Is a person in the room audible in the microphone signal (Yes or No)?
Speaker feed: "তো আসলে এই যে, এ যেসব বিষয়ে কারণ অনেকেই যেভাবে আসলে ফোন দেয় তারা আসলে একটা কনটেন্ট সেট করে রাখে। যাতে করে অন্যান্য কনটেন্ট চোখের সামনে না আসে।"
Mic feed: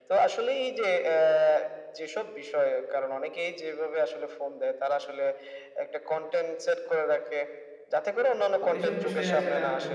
Yes